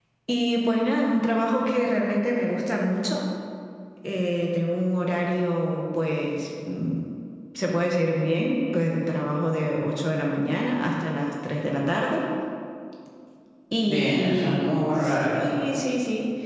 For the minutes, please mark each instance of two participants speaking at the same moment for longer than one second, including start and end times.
13.8-15.3

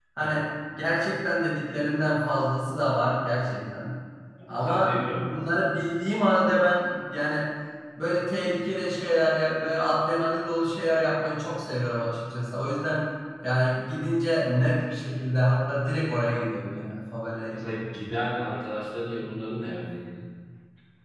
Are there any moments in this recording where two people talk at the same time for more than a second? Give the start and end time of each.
4.5-5.7

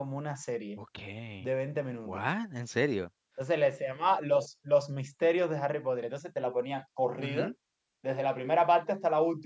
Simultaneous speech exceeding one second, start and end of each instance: none

